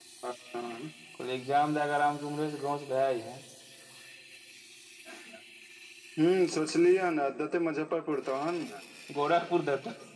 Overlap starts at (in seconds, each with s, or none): none